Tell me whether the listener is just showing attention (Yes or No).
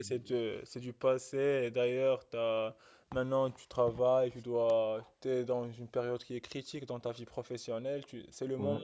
Yes